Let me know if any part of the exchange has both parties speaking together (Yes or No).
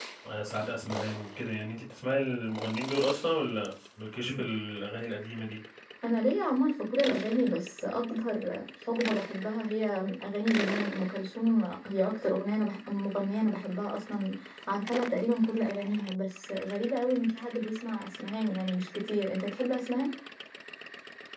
No